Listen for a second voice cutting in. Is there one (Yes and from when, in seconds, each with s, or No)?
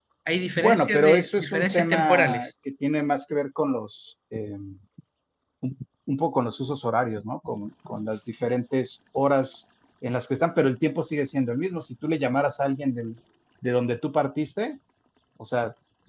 Yes, from 0.6 s